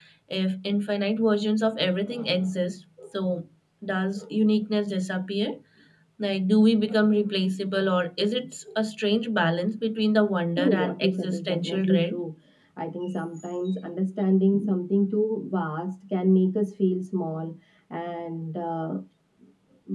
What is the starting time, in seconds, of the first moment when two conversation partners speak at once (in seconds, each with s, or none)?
10.6 s